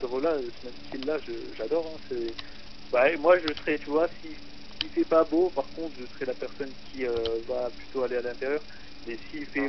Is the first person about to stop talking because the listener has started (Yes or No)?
No